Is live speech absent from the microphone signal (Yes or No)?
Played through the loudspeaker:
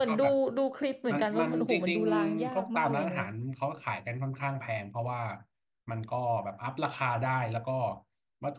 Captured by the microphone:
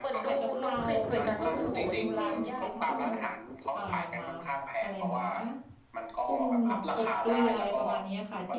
No